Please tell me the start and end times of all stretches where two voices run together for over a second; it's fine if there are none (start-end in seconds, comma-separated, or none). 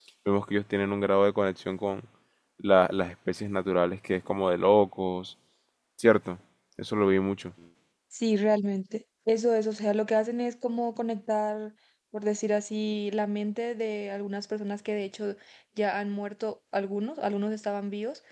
none